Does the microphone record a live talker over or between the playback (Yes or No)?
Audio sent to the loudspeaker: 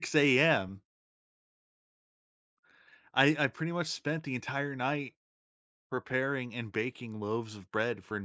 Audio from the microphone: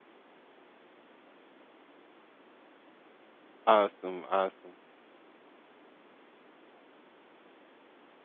Yes